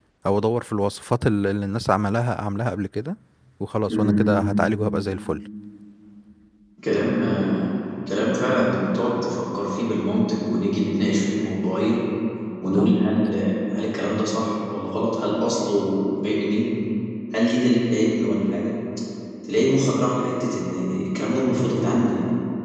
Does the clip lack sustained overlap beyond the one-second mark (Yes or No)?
Yes